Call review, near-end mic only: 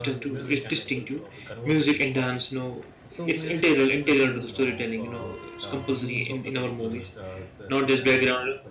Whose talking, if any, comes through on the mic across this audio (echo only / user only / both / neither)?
both